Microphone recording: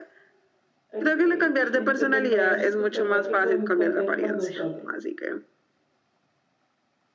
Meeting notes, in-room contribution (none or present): present